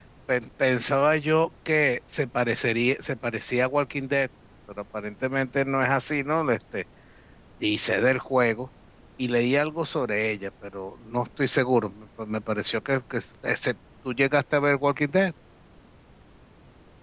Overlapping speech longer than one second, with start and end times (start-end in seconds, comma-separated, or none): none